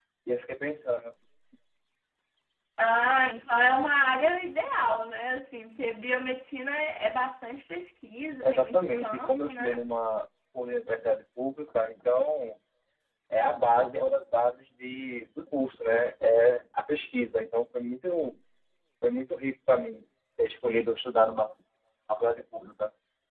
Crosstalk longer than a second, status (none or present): present